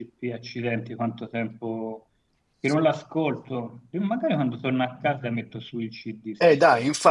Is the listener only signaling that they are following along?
No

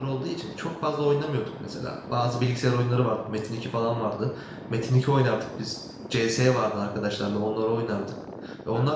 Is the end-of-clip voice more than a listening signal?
No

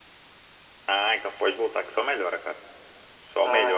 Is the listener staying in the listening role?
Yes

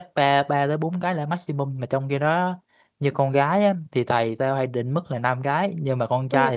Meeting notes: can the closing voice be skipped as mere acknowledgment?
Yes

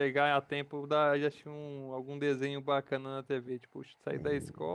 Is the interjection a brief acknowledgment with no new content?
Yes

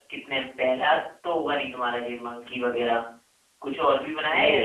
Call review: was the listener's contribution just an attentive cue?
No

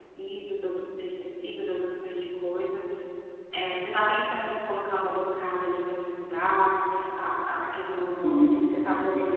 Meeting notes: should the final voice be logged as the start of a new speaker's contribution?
Yes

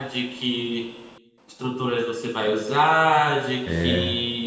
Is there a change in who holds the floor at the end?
No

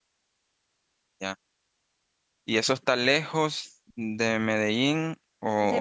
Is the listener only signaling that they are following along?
No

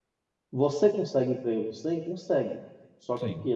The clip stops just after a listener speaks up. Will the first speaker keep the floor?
Yes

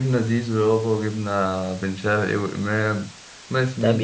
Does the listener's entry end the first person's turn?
Yes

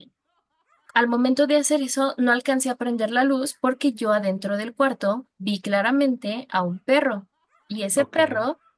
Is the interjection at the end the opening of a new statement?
No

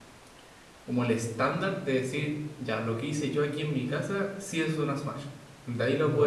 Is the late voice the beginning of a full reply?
Yes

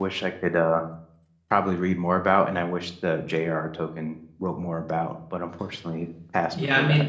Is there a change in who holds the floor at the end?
Yes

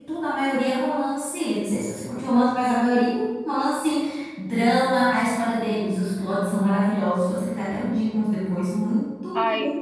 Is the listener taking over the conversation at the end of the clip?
No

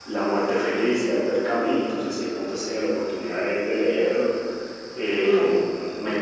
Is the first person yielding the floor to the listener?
No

